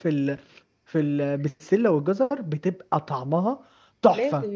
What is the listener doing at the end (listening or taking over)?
taking over